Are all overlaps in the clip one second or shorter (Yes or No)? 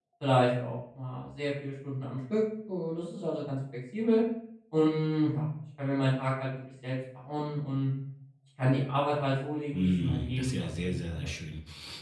No